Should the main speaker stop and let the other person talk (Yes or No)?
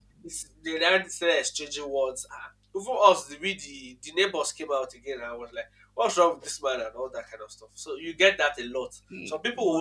No